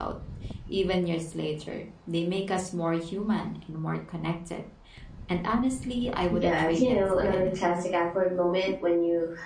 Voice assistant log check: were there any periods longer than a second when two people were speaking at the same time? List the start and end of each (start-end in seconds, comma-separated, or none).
6.4-7.7